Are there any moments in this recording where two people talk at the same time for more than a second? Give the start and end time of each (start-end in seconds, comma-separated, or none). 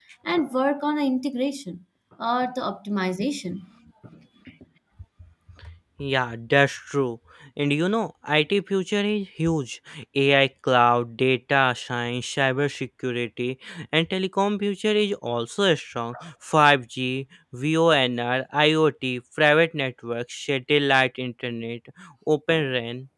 none